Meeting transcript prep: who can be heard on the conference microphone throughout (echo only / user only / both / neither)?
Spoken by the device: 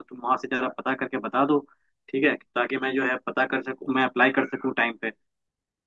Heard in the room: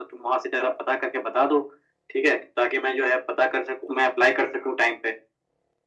echo only